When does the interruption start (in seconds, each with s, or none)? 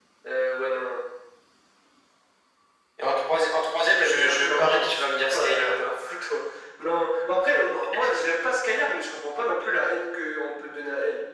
4.0 s